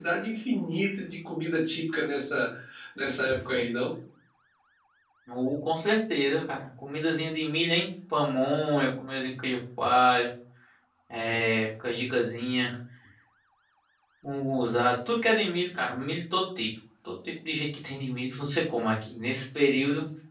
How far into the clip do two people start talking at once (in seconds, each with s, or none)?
none